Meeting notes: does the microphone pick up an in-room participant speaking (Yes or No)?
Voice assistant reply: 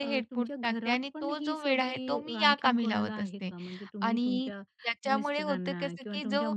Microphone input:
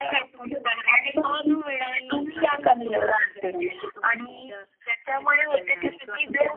No